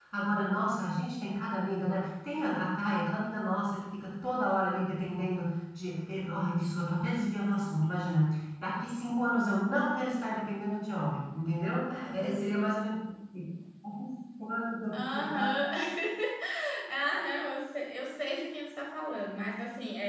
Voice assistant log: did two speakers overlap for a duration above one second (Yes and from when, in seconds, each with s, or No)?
No